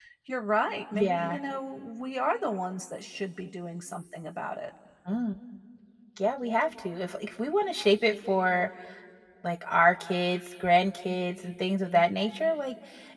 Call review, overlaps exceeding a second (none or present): none